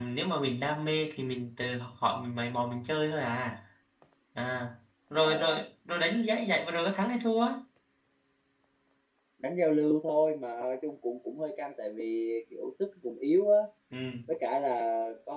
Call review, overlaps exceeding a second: none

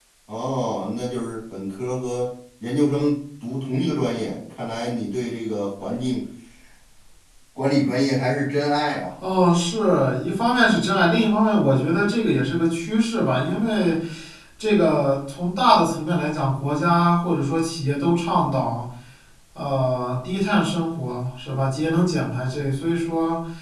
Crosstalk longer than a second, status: none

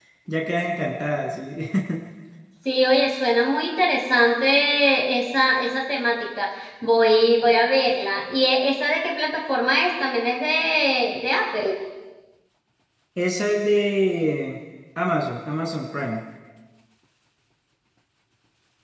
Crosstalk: none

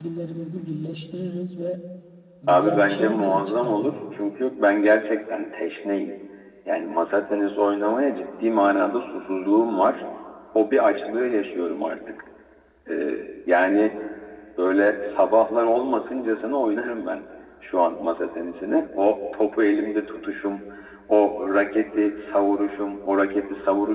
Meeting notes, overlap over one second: present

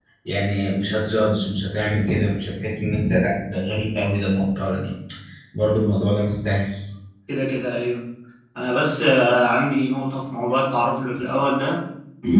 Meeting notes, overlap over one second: none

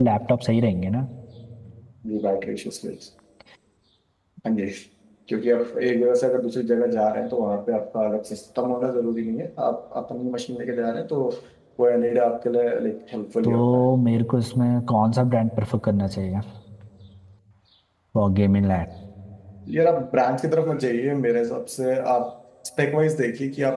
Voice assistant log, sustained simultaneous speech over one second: none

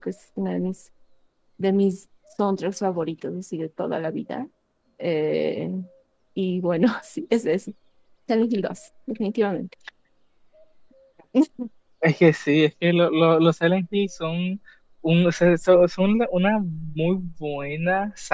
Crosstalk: none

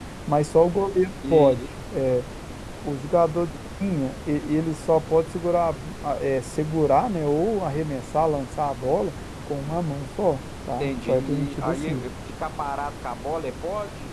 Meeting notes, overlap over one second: present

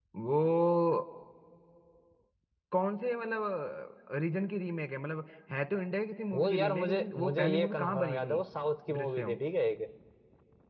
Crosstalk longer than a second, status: present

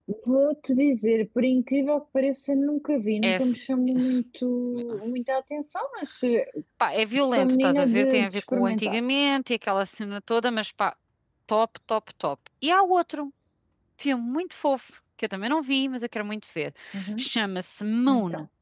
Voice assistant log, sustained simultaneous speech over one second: present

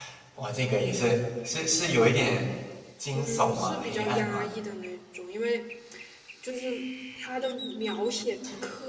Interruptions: present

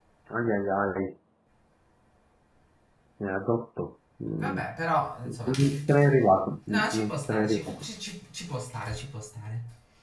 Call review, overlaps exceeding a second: present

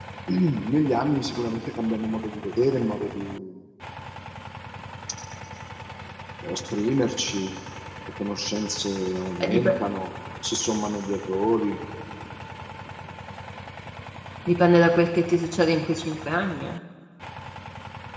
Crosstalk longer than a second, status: none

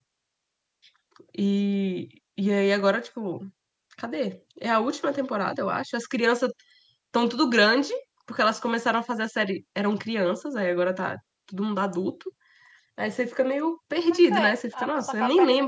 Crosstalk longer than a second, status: present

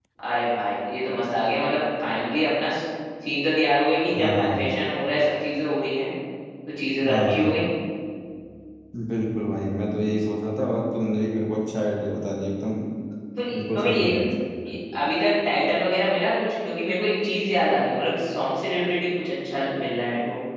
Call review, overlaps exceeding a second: none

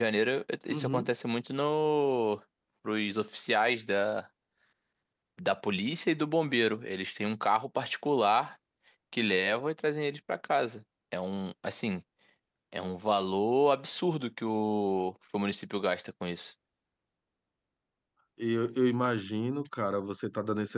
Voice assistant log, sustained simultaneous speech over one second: none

